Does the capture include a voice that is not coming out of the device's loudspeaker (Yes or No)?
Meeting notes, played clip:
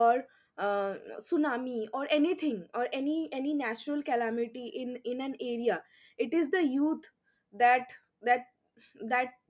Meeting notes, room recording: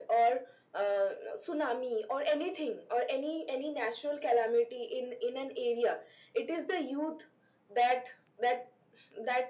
No